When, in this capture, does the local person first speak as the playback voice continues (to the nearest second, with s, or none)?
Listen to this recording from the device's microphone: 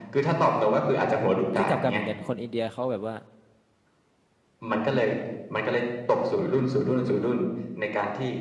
2 s